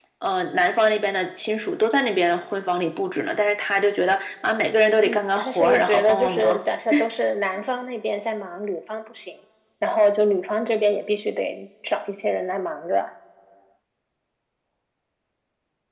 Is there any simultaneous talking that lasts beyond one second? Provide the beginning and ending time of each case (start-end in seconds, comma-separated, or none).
5.0-6.6